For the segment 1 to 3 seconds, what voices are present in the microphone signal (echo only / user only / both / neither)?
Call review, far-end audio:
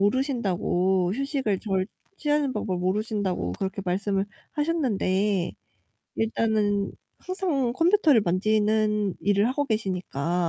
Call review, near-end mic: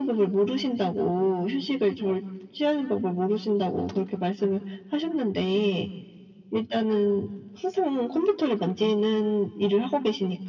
echo only